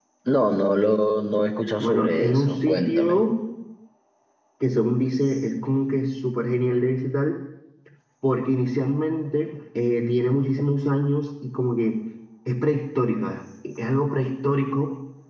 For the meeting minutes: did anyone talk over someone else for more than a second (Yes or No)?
Yes